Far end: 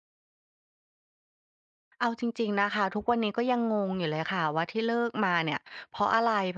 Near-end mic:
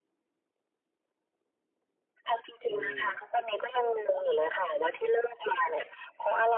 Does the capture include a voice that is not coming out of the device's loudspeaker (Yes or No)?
Yes